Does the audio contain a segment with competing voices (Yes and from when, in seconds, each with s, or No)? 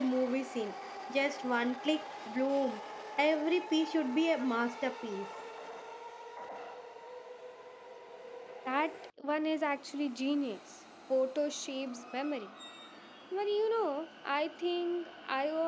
No